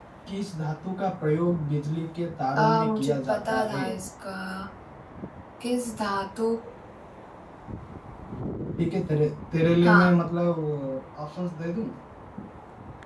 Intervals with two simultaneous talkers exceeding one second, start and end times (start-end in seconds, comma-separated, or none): 2.6-3.8